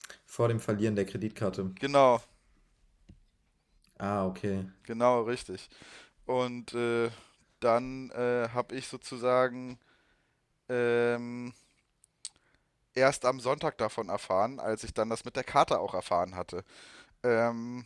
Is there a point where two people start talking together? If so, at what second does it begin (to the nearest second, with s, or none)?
none